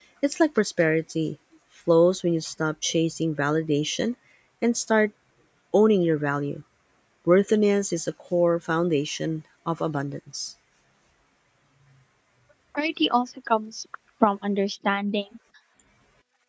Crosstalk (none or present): none